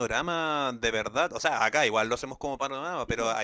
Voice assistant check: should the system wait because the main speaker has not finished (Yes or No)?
Yes